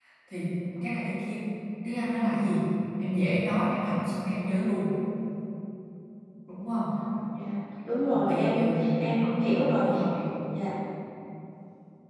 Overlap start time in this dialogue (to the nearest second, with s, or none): 8 s